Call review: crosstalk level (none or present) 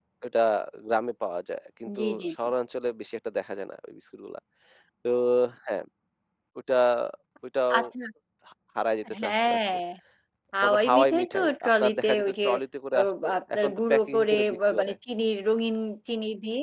present